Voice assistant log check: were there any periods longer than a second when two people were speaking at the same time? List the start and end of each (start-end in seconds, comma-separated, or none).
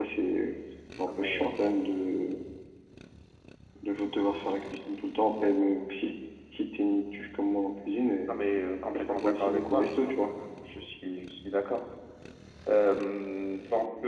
8.9-10.2